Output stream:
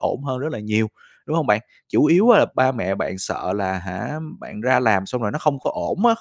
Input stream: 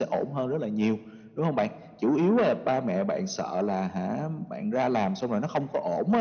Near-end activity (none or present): none